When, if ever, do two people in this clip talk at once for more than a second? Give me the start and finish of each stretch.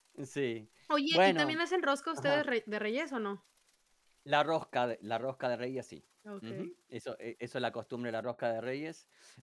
none

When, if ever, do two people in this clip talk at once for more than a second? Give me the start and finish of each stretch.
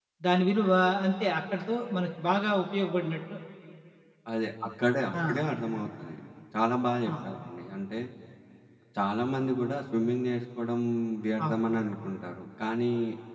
none

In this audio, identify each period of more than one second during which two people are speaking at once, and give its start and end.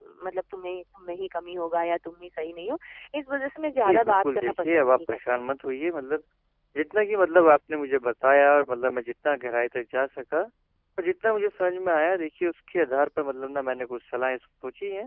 3.7-5.5

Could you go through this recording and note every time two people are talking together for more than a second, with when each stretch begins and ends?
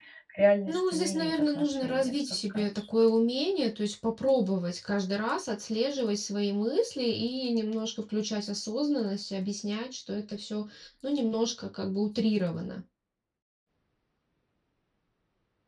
0.7-2.8

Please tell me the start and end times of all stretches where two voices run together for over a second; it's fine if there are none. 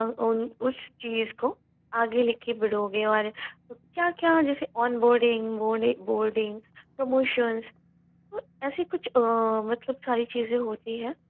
none

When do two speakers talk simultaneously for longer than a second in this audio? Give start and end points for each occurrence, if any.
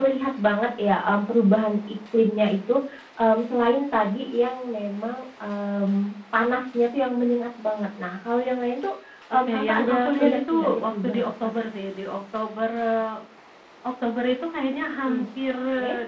9.5-11.6

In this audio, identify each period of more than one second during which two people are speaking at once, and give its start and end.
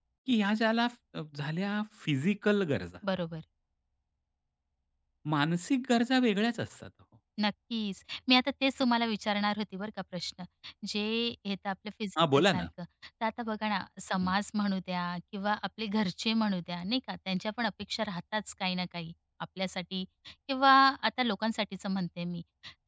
none

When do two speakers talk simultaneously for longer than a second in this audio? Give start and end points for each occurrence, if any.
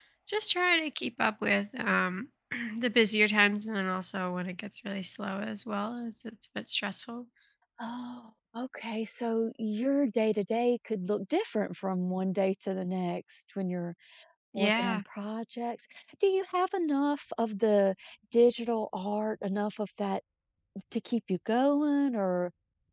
none

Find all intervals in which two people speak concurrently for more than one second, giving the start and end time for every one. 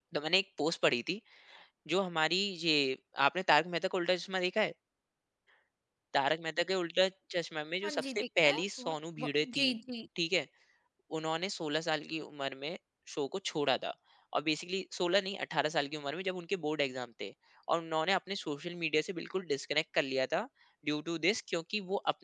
7.8-9.6

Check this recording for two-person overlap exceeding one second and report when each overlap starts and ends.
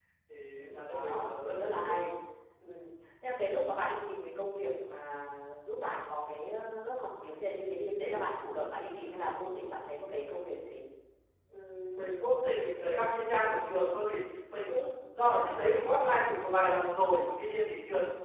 0.6-2.1

